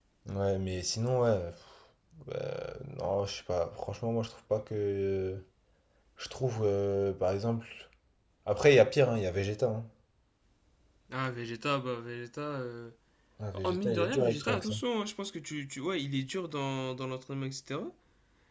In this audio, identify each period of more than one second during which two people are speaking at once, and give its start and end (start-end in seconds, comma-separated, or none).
13.5-14.8